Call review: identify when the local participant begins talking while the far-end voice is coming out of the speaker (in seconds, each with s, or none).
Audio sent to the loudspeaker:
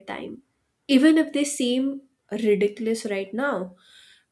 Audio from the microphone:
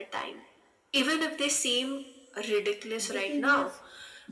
3.0 s